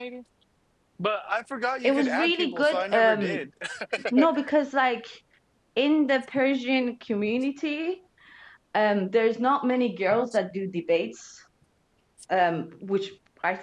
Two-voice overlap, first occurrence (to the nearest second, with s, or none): 2 s